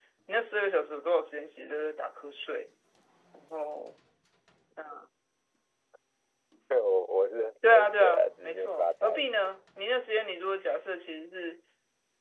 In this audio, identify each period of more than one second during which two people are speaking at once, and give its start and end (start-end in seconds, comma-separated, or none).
7.6-9.2